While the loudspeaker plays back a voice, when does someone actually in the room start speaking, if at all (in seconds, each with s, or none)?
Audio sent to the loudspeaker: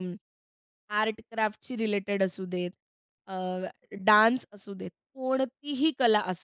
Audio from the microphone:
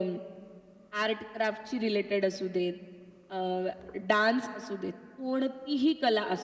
none